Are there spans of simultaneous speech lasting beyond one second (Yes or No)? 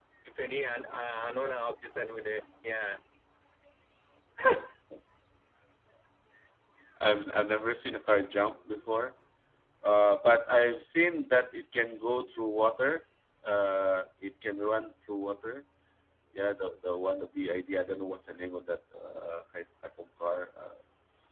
No